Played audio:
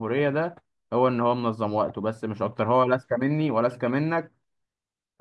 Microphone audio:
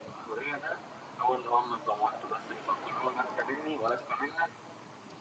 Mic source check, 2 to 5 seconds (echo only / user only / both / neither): echo only